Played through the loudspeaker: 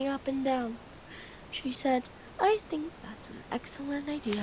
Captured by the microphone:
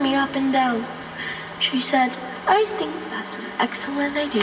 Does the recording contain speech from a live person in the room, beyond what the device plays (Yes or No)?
No